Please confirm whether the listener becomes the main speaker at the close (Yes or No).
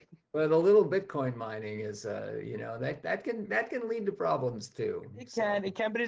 Yes